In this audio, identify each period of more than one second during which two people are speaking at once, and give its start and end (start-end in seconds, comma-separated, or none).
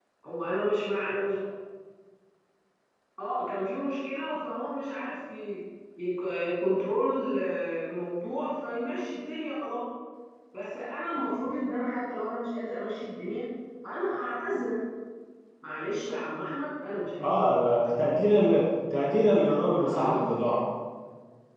none